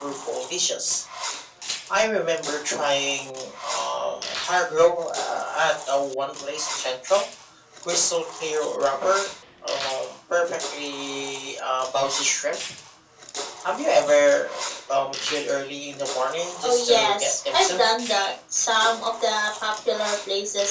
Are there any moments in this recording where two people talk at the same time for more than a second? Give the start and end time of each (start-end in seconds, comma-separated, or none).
16.6-17.9